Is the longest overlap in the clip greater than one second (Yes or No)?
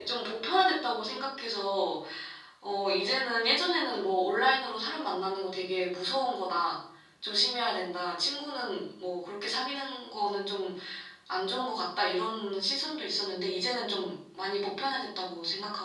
No